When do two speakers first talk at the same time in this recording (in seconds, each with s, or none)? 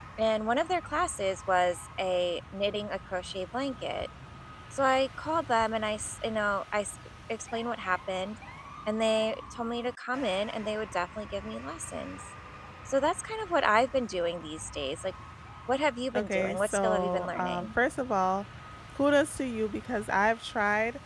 16.1 s